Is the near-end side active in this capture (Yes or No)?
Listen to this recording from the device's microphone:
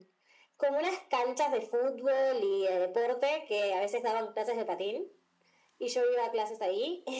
No